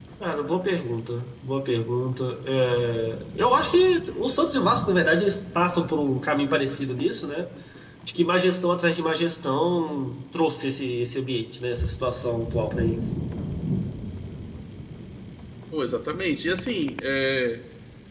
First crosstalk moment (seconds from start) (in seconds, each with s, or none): none